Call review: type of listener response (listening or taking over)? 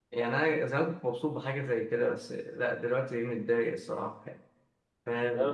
taking over